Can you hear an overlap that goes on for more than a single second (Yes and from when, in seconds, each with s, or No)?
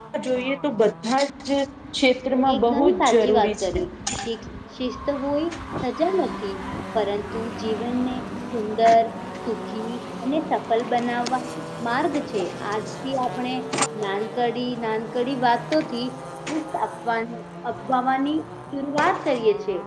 Yes, from 2.5 s